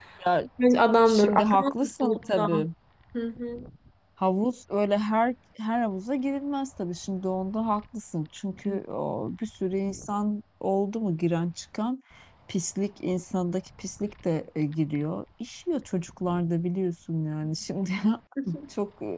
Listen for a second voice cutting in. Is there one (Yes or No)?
Yes